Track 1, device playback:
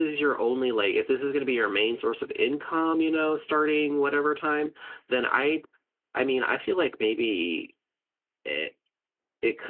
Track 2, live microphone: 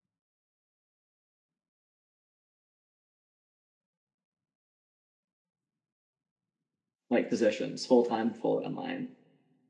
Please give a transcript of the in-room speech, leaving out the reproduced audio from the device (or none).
like positions, full time, fully online.